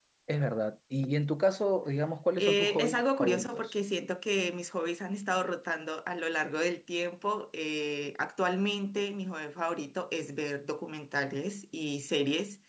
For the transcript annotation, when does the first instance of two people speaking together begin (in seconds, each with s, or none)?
2.4 s